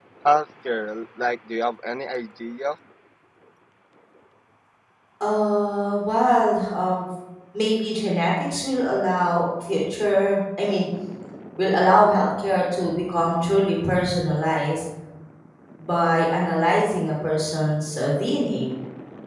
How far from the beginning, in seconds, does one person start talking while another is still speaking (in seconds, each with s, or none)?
none